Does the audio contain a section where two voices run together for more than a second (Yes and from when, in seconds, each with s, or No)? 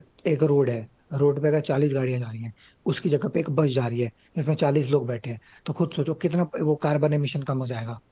No